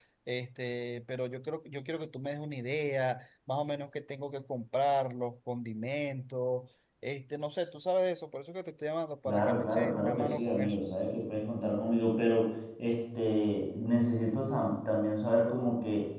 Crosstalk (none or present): present